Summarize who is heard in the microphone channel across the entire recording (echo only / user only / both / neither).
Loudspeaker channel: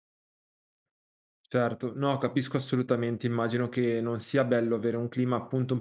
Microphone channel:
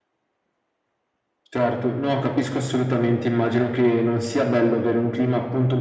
echo only